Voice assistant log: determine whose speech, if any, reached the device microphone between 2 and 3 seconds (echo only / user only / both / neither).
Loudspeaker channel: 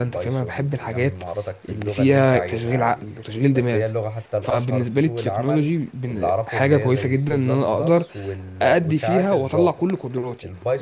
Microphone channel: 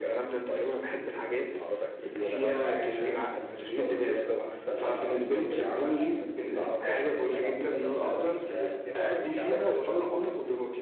both